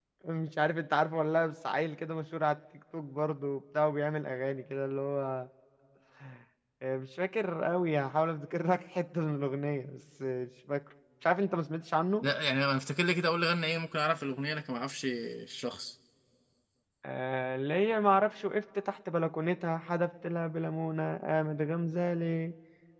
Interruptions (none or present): none